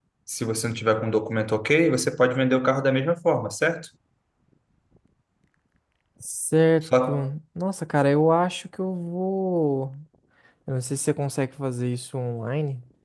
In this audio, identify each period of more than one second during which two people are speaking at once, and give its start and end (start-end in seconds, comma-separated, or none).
none